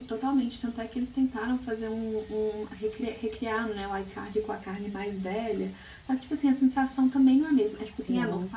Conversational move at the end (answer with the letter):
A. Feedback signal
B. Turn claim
A